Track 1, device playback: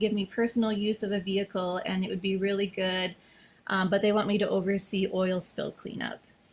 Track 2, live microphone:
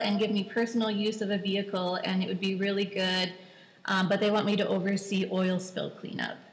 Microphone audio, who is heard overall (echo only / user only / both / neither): echo only